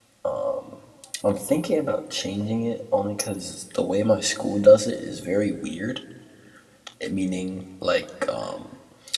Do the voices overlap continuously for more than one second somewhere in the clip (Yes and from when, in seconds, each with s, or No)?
No